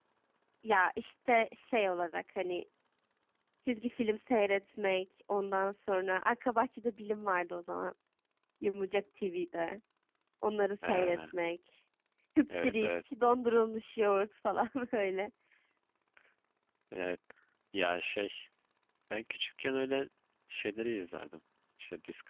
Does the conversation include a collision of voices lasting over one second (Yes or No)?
No